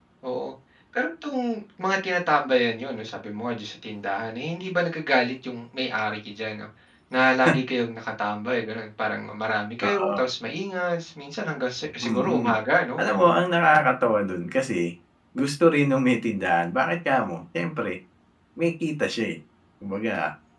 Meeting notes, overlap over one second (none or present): none